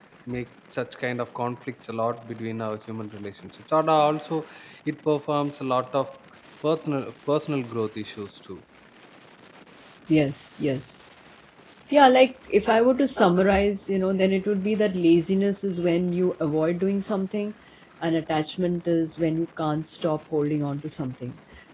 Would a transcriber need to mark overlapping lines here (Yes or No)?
No